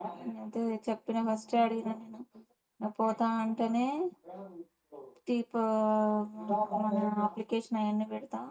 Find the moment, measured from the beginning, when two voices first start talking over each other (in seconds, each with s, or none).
none